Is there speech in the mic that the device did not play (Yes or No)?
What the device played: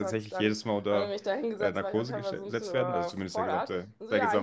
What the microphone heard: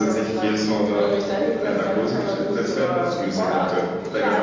No